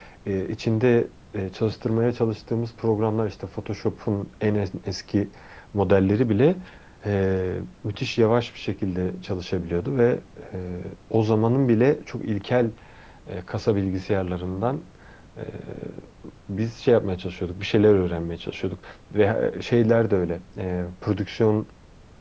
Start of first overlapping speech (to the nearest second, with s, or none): none